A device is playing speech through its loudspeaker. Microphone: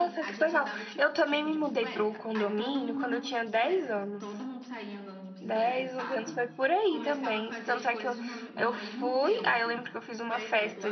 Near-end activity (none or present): present